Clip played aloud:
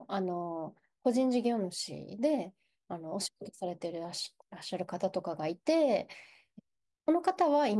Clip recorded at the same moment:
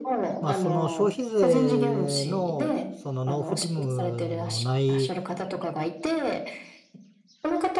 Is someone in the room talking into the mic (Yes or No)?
Yes